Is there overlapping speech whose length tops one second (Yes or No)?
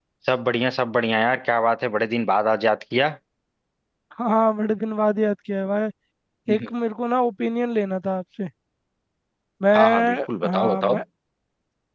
Yes